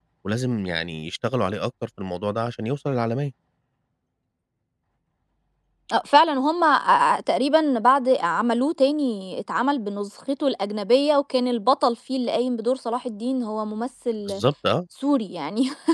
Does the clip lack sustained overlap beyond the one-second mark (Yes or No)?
Yes